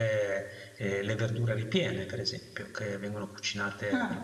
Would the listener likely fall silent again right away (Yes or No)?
Yes